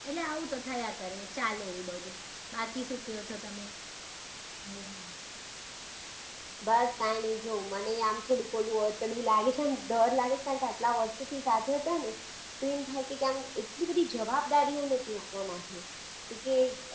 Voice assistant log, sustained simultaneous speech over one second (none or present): none